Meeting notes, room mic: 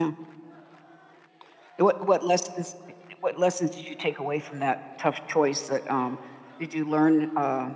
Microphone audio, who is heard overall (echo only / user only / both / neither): user only